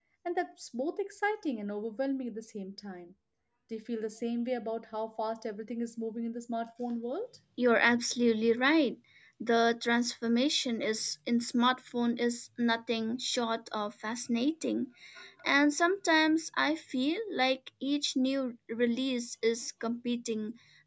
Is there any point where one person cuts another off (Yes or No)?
No